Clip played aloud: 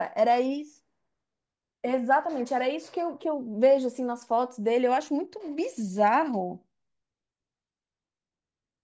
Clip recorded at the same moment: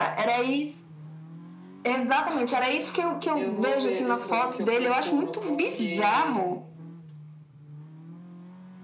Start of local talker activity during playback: 3.3 s

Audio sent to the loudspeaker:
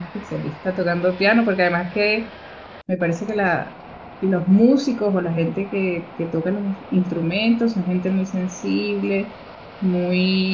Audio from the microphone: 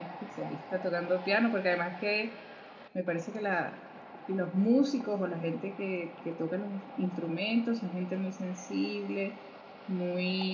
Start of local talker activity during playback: none

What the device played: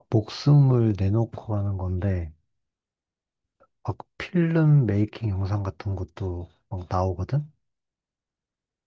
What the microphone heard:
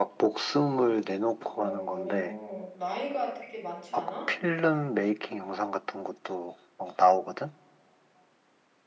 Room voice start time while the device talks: 1.5 s

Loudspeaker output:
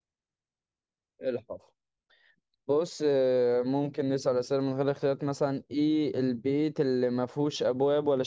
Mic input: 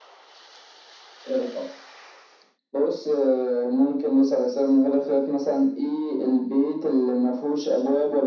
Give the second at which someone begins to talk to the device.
none

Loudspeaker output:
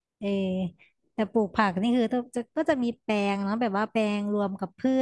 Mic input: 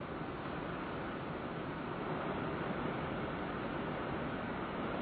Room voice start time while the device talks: none

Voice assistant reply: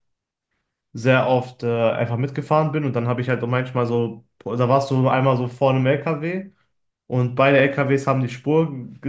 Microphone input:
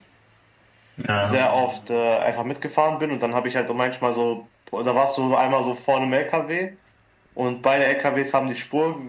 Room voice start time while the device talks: 1.1 s

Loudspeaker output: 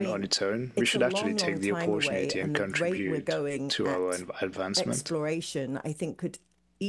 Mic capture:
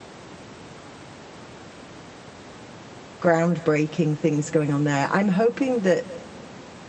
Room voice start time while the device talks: 3.2 s

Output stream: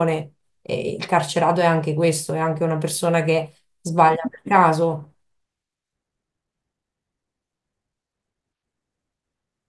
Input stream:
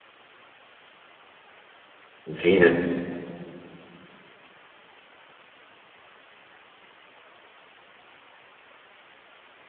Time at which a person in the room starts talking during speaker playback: 2.3 s

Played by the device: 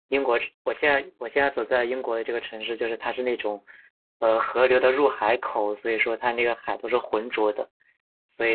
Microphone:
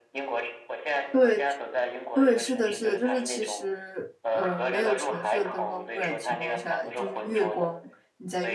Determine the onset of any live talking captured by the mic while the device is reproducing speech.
1.1 s

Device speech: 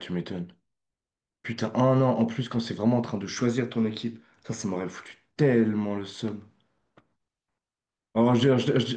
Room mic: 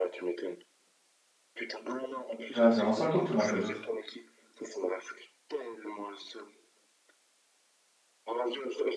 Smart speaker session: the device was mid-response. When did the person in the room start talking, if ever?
2.5 s

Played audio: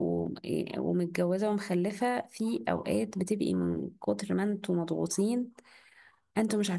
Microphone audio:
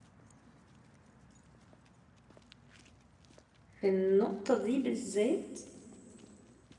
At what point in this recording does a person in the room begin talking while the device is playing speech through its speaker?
3.8 s

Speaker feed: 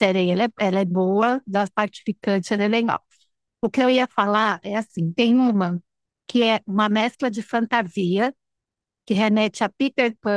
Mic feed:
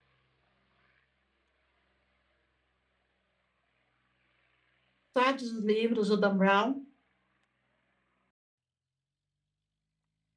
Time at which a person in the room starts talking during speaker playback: 5.1 s

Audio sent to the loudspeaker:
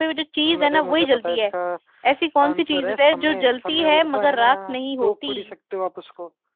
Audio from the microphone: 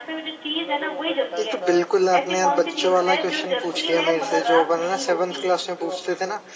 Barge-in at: 1.4 s

